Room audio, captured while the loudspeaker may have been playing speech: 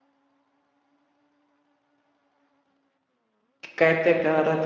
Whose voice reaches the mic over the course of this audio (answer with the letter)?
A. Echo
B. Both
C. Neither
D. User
D